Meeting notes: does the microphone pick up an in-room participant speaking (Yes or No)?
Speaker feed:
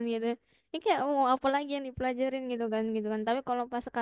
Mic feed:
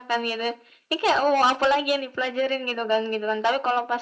No